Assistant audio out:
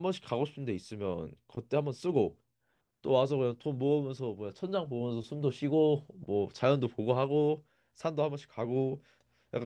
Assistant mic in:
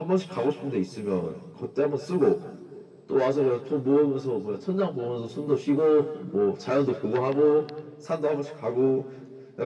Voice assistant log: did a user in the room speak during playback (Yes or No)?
No